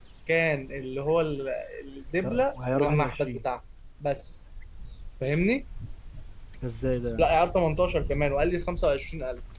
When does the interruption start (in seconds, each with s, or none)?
2.2 s